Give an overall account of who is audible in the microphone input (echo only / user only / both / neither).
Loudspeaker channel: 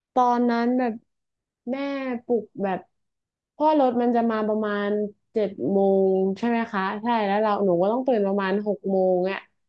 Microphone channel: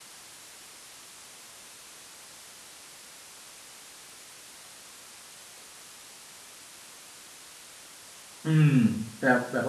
user only